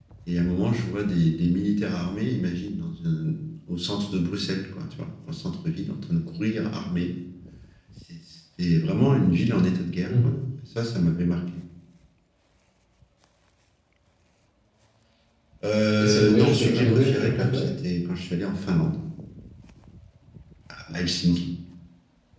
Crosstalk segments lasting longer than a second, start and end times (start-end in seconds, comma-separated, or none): 16.0-17.7